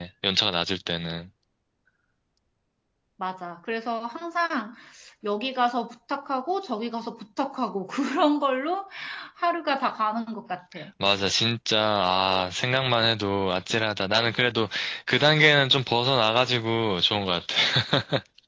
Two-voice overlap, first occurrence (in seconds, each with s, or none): none